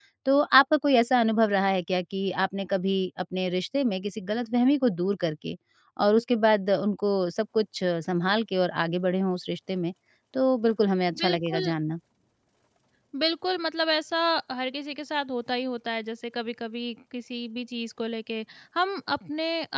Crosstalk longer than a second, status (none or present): none